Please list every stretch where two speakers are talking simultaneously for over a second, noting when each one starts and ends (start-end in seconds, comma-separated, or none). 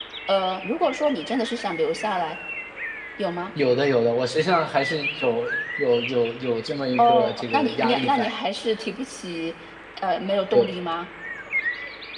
7.0-8.3